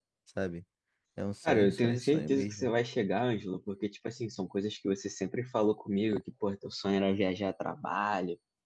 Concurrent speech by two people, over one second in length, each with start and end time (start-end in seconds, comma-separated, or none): 1.4-2.7